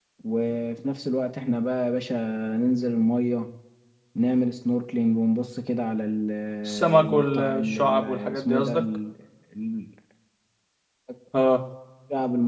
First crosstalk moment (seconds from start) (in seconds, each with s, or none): 6.7 s